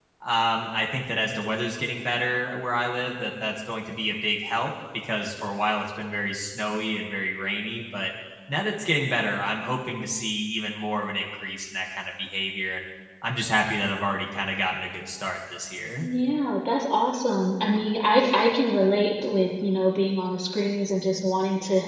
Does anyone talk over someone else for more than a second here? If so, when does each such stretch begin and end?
none

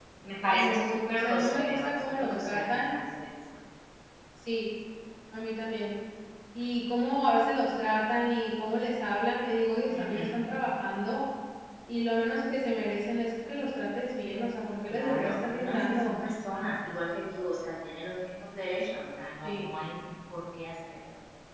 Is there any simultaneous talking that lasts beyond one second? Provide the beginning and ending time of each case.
0.5-2.8, 14.9-16.2

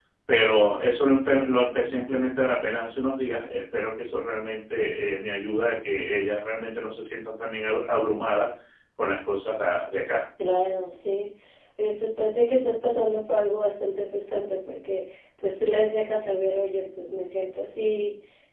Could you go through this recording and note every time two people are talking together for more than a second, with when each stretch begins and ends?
none

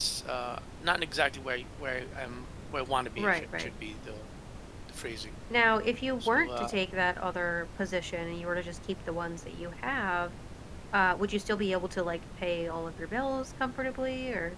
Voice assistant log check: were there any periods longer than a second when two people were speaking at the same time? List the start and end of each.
none

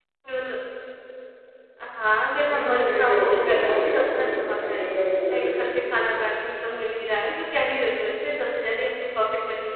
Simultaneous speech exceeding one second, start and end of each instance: 2.5-4.8

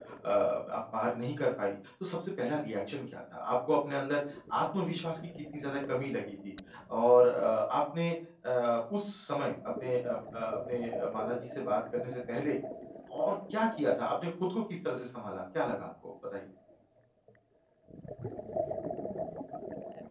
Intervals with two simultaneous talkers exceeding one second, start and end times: none

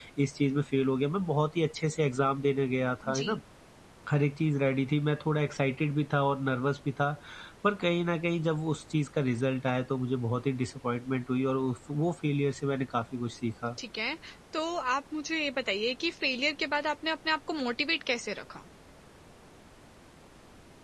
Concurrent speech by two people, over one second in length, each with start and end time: none

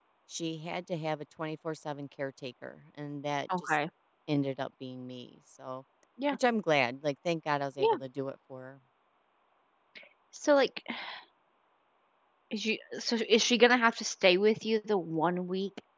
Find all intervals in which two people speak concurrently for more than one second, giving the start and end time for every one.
none

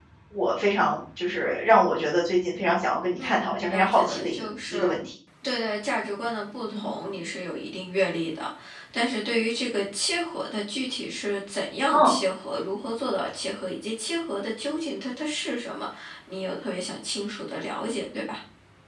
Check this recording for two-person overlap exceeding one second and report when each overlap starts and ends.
3.2-5.0

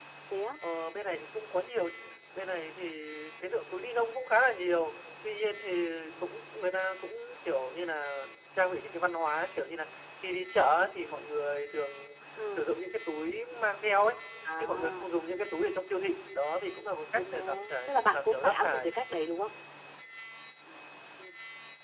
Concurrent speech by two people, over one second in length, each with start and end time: 17.1-18.9

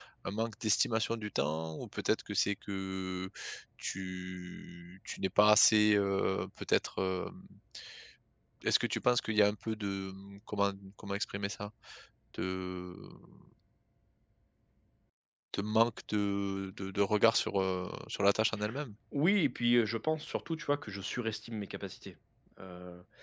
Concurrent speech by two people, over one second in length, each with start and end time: none

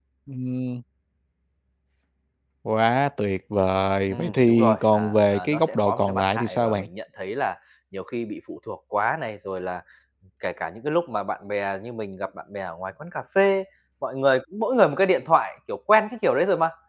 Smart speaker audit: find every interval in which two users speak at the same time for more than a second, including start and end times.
4.1-6.9

